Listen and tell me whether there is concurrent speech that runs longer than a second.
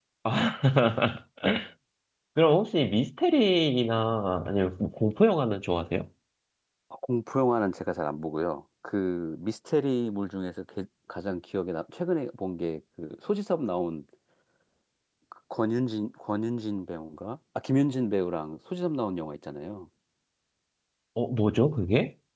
No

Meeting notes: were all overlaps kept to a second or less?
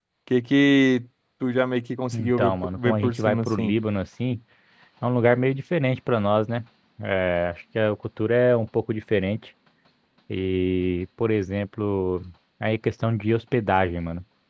No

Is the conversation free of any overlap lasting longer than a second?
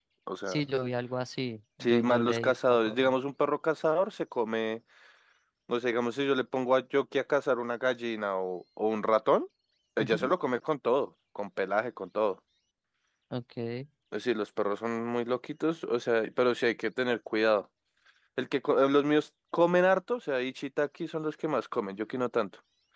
No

